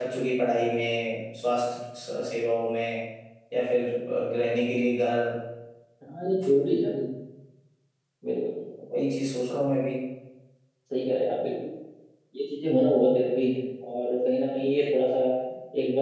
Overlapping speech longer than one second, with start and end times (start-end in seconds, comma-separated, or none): none